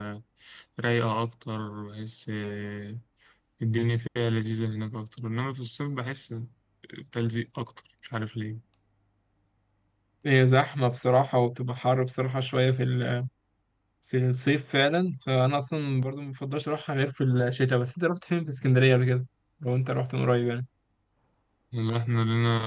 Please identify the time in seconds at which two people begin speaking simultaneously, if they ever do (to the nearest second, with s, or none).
none